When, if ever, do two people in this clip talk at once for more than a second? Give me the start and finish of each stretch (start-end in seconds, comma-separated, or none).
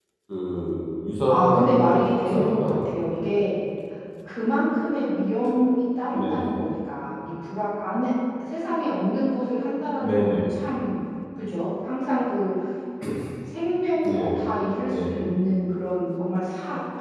1.2-3.1